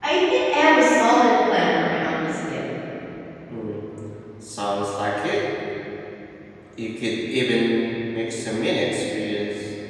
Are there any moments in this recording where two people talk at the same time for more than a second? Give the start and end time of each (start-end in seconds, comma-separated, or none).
none